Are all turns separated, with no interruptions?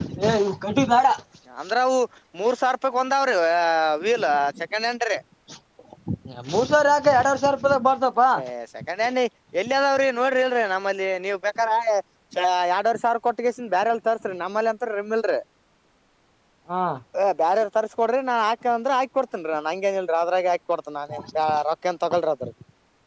Yes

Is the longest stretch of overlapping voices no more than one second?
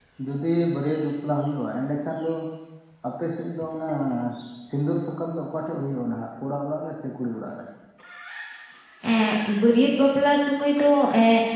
Yes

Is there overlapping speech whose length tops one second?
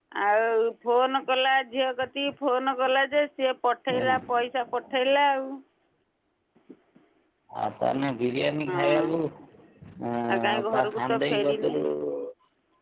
Yes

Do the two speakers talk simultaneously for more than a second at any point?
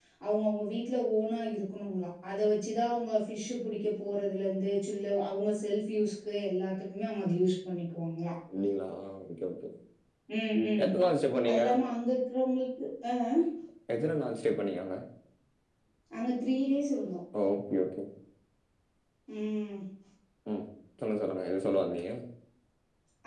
No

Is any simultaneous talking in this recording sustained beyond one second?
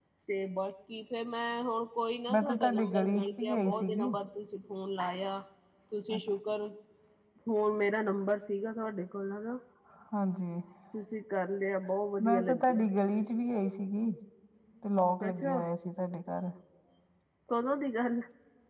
Yes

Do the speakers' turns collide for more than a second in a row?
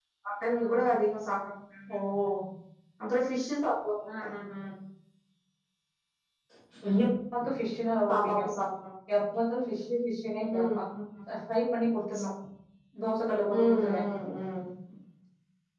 No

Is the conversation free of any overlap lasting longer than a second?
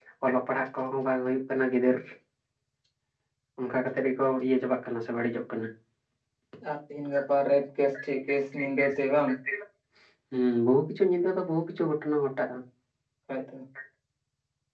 Yes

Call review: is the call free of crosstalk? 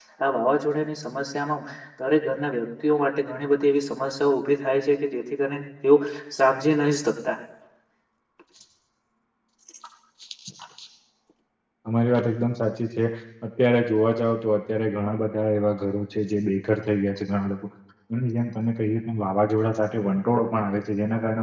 Yes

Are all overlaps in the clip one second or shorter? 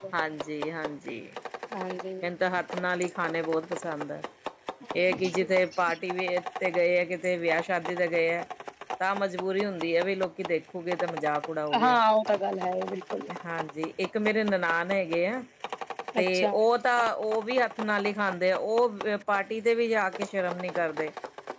Yes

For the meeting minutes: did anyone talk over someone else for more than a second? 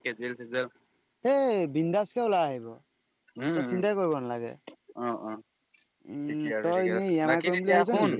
Yes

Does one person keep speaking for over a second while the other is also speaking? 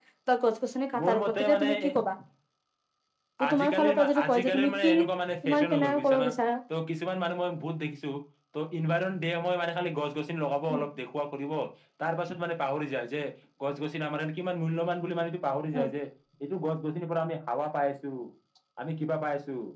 Yes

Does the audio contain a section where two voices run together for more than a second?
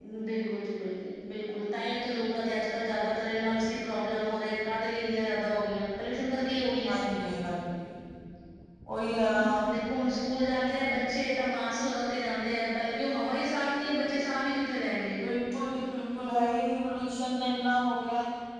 No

